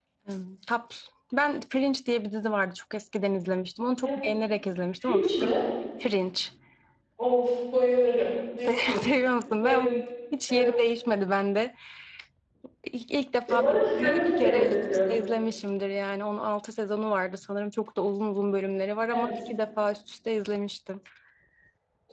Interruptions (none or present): present